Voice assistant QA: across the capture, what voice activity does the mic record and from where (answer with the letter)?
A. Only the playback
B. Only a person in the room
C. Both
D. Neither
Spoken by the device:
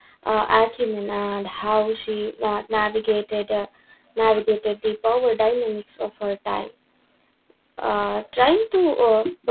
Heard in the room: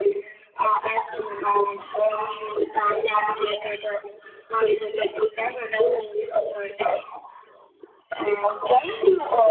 A